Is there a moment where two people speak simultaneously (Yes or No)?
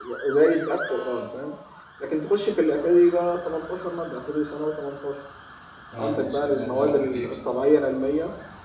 Yes